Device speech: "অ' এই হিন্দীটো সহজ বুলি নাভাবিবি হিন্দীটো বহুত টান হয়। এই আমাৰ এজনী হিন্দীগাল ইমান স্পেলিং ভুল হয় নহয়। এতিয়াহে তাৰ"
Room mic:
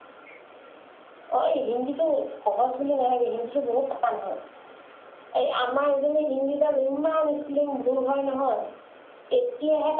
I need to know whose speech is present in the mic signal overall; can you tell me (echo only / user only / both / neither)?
echo only